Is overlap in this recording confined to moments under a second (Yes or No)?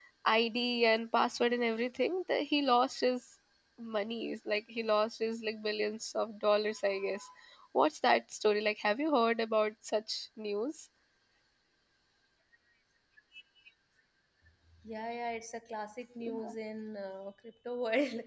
Yes